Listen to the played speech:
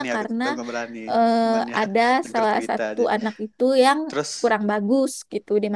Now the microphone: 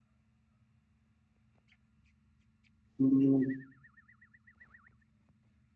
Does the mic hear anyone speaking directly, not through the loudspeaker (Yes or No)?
Yes